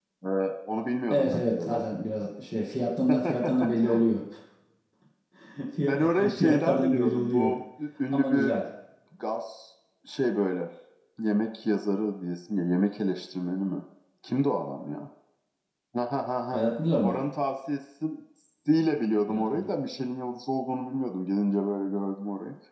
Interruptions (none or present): present